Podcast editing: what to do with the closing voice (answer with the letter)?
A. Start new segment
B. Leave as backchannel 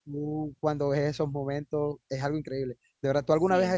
B